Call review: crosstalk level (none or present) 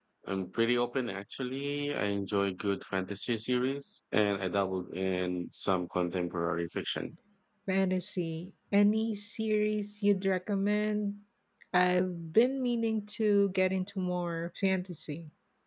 none